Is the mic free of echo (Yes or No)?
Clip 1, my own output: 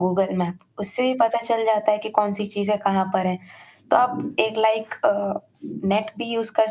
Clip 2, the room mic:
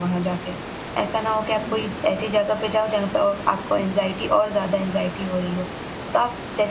Yes